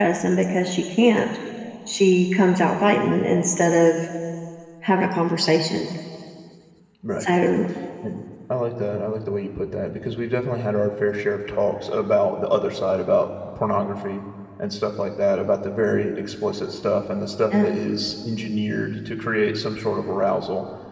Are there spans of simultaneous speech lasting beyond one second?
No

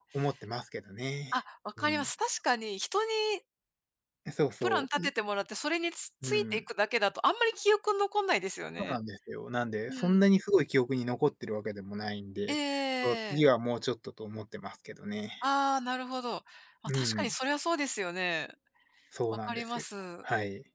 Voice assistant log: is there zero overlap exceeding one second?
Yes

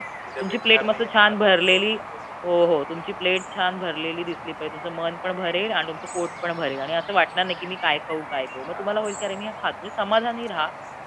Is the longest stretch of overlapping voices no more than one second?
No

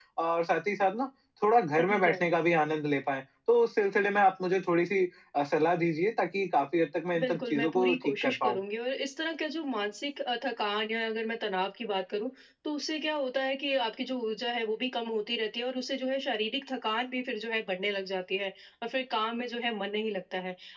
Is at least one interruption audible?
Yes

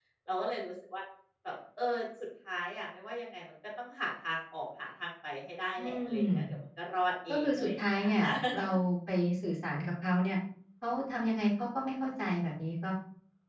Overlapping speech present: Yes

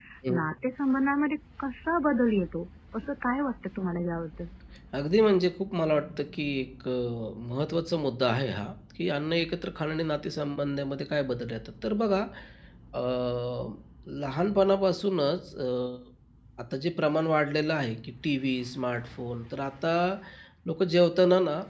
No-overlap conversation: Yes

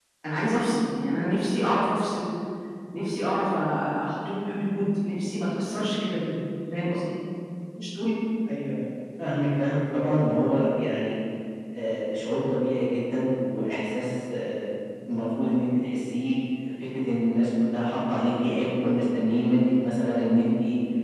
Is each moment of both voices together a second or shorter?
Yes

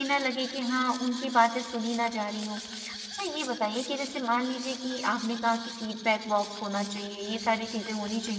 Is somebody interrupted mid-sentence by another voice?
No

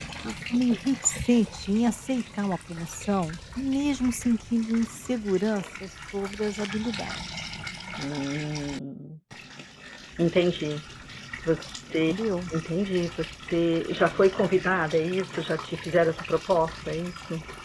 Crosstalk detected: No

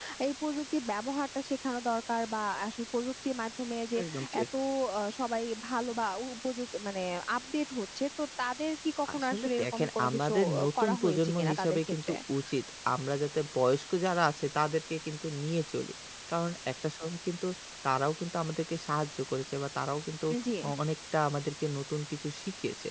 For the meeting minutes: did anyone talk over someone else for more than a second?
Yes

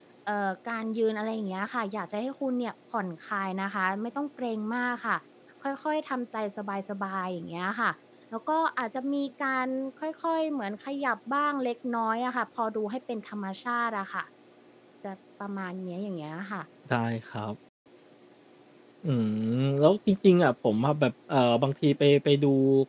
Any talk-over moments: No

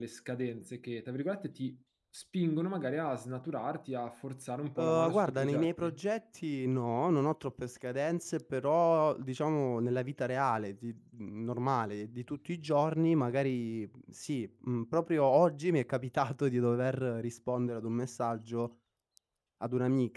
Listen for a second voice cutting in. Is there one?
Yes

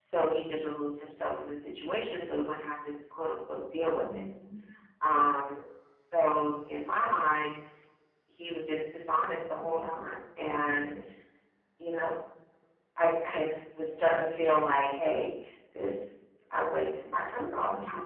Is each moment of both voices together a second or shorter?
Yes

